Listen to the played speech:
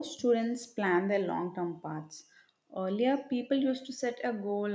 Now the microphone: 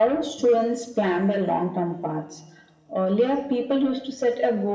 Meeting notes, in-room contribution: none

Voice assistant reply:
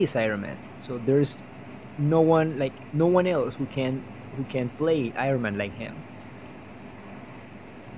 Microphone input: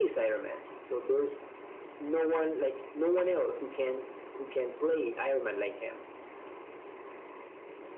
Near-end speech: none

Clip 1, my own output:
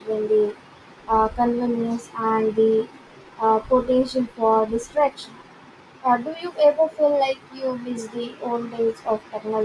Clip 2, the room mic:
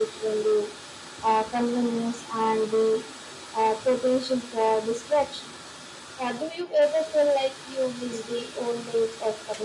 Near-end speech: none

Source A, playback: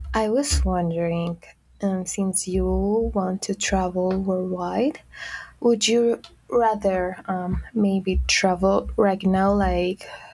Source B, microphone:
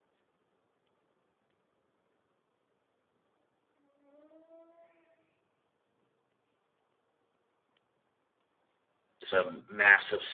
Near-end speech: present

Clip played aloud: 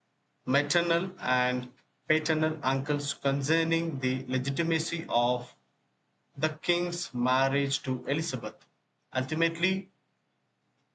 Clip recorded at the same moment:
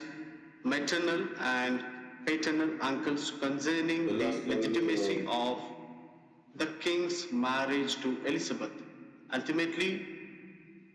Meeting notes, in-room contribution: present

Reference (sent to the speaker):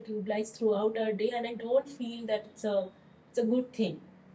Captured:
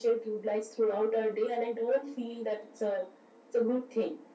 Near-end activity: none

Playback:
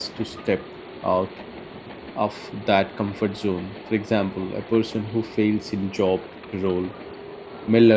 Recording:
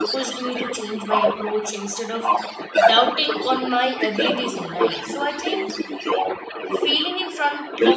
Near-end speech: present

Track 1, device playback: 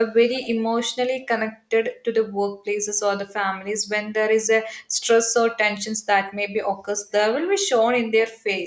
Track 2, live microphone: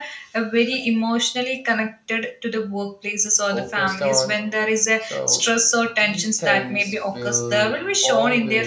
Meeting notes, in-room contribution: present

